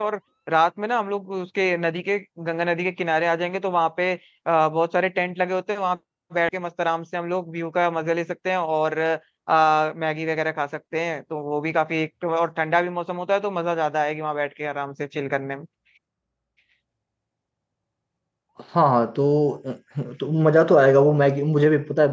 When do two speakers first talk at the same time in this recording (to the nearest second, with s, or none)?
none